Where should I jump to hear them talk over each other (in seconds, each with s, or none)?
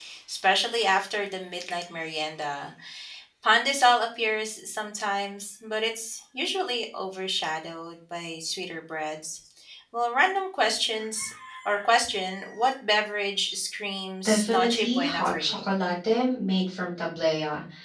14.2 s